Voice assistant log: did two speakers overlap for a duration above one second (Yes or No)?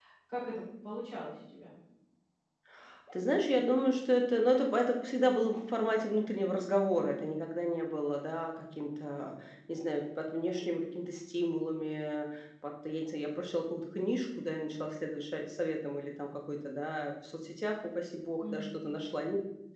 No